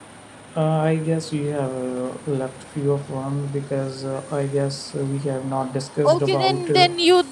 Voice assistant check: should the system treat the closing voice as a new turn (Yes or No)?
Yes